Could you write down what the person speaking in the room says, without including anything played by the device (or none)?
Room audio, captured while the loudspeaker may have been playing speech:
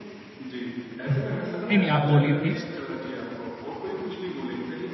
हुँ। नहीं, नहीं आप बोलिए प्लीज़,